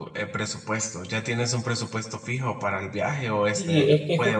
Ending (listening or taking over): taking over